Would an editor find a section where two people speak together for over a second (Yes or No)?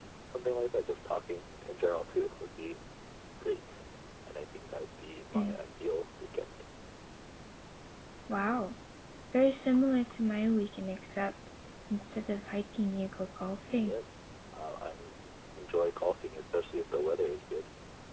No